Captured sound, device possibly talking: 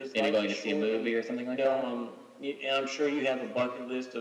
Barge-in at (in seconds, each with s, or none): none